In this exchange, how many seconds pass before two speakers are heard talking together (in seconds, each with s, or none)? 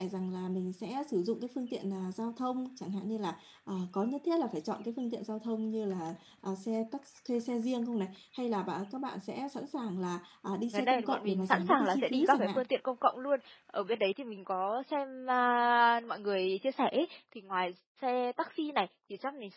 10.7 s